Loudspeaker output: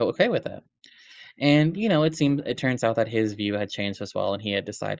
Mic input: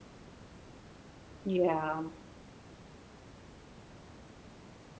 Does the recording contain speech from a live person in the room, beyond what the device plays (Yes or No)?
Yes